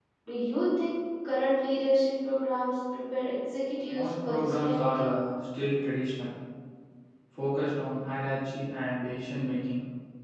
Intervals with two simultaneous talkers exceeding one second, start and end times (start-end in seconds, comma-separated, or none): 3.9-5.1